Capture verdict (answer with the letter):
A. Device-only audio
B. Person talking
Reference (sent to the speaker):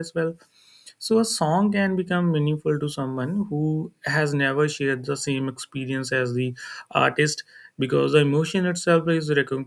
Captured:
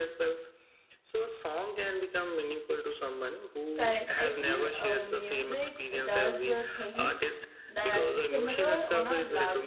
B